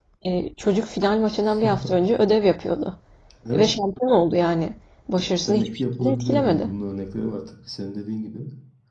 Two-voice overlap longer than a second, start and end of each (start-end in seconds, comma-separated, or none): 5.5-6.7